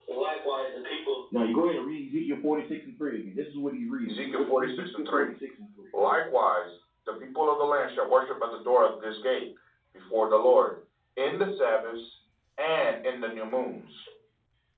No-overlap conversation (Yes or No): No